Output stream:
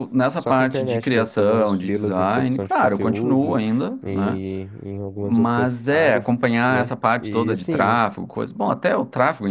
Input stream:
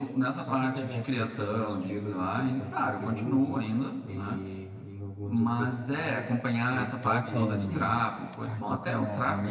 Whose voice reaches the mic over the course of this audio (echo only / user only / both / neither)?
both